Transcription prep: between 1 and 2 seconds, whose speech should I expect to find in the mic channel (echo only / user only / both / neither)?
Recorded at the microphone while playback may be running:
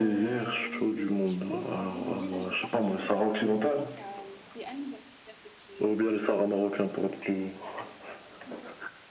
both